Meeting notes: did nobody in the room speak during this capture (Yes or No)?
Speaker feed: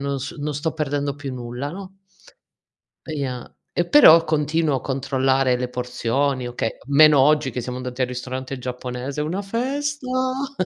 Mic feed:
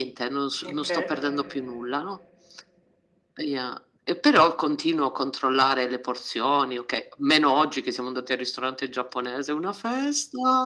No